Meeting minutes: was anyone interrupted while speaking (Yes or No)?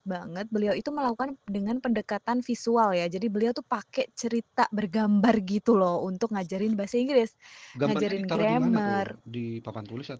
Yes